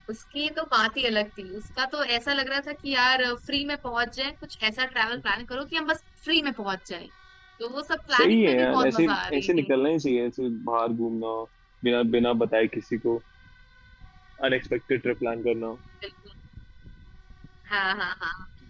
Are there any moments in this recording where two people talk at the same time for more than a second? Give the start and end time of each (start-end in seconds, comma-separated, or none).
8.2-9.7